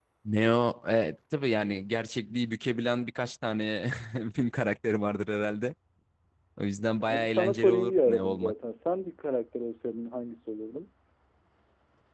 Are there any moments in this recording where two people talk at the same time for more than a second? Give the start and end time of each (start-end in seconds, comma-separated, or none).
7.1-8.5